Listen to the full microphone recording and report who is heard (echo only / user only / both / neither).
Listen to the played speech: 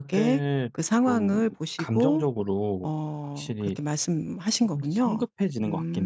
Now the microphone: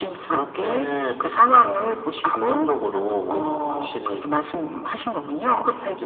echo only